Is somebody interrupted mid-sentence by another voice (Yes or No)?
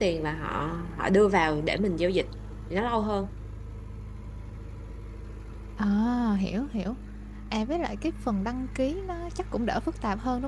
No